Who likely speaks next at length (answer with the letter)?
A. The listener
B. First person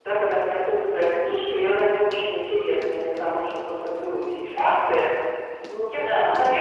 B